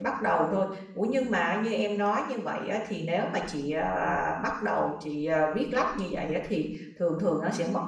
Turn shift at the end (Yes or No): No